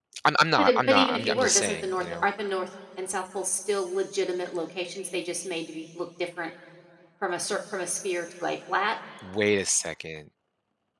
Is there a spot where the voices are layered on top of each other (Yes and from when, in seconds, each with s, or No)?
Yes, from 0.6 s